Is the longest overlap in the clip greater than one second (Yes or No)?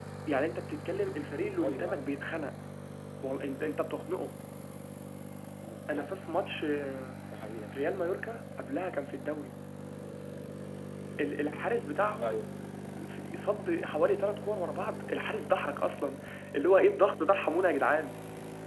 No